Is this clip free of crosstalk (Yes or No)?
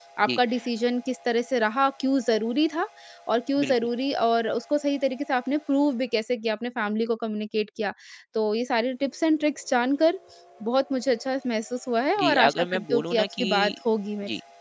No